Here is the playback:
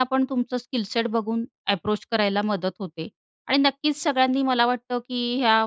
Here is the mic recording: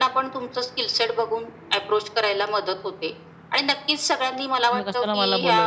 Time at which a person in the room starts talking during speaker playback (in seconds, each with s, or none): 4.7 s